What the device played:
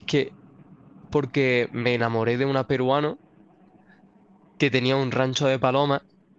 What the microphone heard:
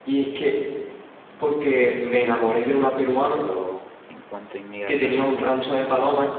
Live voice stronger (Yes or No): No